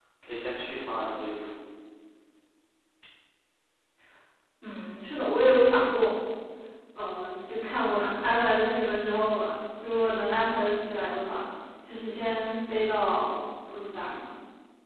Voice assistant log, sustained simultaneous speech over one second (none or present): none